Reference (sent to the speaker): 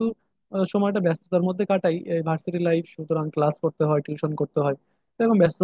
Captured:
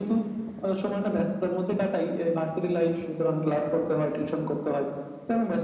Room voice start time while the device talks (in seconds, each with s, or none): none